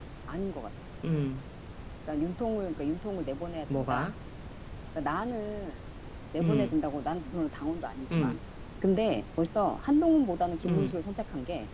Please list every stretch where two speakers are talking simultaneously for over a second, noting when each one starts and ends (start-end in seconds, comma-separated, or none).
none